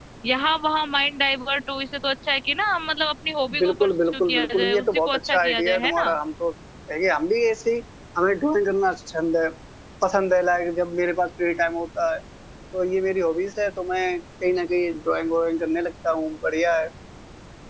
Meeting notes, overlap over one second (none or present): present